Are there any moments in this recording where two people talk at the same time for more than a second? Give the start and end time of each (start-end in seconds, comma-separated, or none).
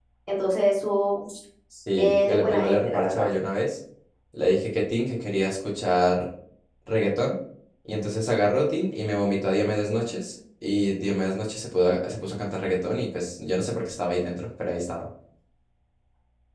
2.0-3.3